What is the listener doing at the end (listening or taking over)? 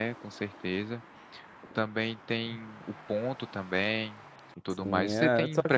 taking over